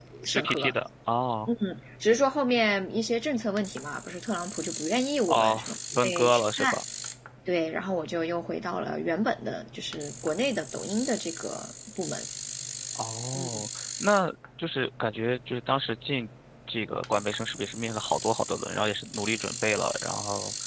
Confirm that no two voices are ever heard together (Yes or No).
No